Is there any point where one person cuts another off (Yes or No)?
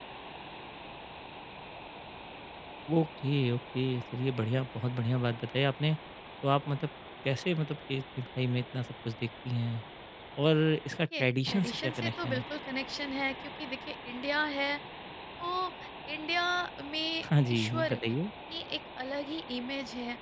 Yes